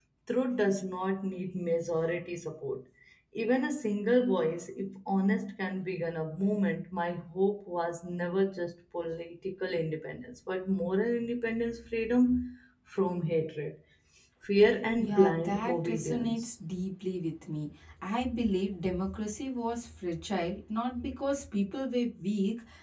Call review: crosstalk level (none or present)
present